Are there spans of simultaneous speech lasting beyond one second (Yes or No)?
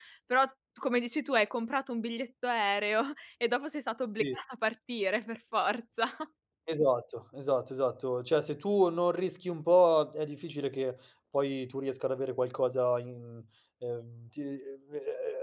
No